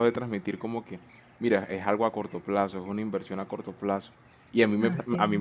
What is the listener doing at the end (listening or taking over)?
listening